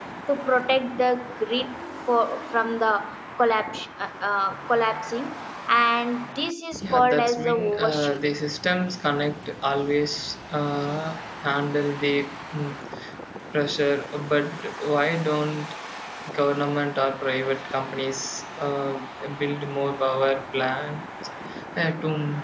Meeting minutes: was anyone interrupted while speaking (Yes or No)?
Yes